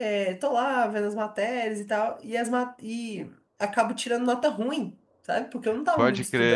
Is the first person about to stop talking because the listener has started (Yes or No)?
Yes